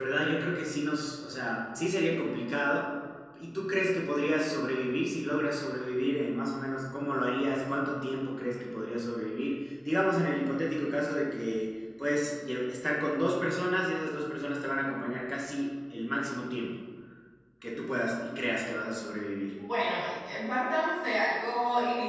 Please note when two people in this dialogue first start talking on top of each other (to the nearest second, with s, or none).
none